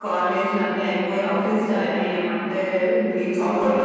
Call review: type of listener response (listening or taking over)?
taking over